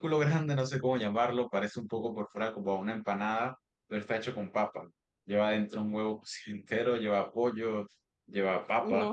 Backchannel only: No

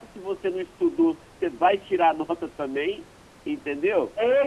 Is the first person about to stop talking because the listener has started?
Yes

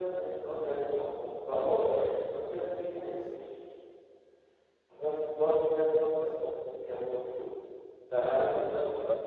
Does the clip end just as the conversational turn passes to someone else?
Yes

